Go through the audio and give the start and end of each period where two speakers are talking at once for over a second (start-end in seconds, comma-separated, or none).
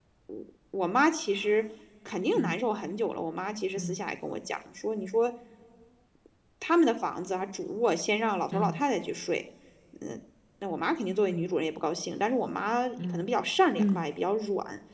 none